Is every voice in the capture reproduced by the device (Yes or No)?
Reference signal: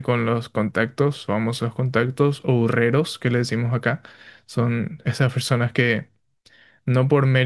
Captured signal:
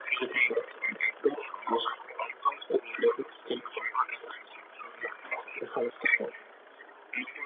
Yes